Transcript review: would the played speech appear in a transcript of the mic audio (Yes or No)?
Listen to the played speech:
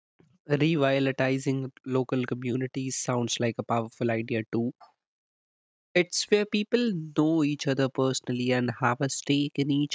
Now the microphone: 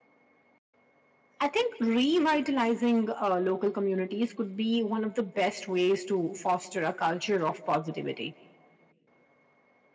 No